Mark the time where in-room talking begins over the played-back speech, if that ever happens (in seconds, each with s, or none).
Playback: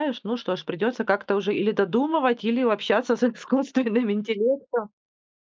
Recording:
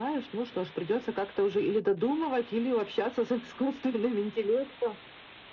none